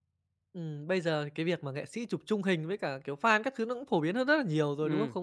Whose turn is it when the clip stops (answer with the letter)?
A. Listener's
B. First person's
B